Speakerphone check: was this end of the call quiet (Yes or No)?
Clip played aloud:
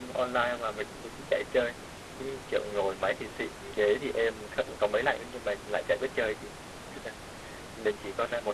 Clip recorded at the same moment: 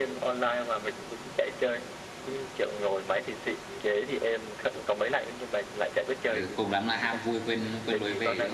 No